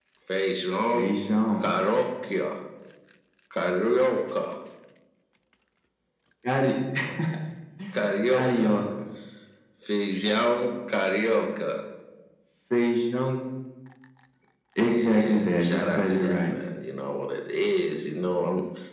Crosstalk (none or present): present